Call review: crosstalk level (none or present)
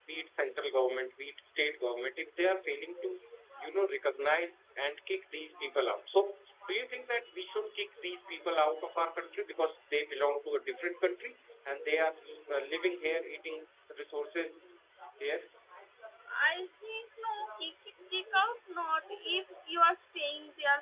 none